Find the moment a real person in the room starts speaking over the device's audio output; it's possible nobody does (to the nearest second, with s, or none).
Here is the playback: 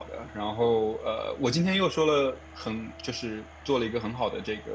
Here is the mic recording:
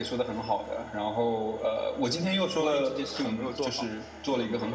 3 s